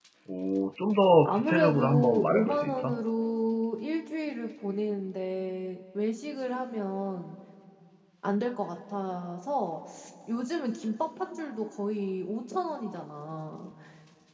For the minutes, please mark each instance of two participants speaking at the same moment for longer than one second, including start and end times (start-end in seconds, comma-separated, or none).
1.2-3.0